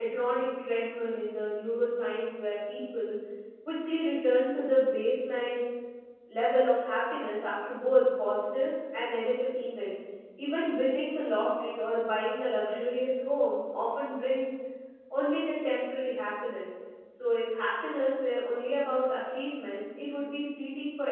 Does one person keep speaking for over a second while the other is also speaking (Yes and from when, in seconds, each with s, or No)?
No